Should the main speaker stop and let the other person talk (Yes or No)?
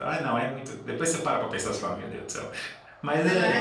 Yes